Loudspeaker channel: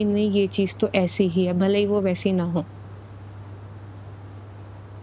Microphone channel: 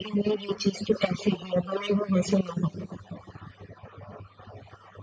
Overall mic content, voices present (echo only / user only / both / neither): echo only